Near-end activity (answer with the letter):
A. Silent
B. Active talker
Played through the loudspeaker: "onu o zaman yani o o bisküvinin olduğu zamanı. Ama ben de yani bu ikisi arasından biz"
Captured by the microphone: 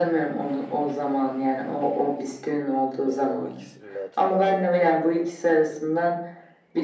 B